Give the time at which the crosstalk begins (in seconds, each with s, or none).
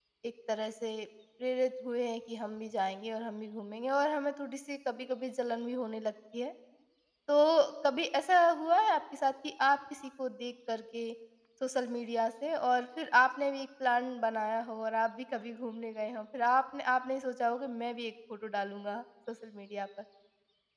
none